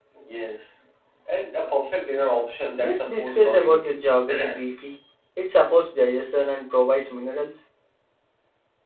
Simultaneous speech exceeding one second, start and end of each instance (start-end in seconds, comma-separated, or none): 2.8-4.0